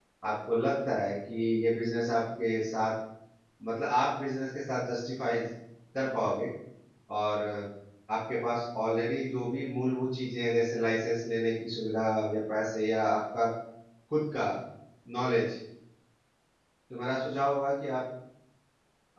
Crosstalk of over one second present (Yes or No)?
No